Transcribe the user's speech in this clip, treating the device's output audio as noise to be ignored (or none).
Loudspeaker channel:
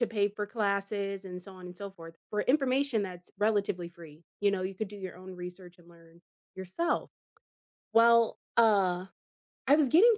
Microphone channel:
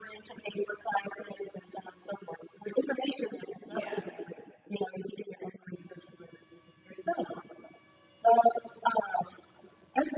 yeah.